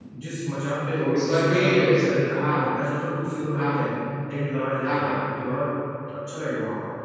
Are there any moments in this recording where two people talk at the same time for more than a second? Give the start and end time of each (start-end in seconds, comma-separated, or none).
0.9-2.4